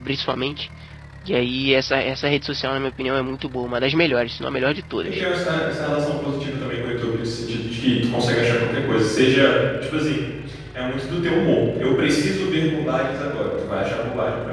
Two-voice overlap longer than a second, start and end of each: none

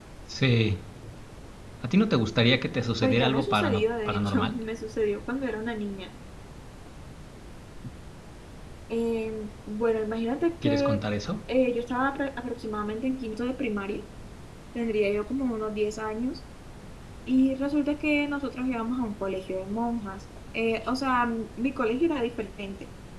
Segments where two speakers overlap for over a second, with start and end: 3.0-4.5

